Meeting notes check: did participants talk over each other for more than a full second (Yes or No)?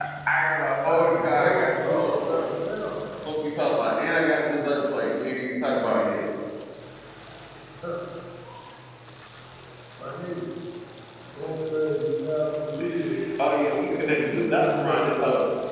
Yes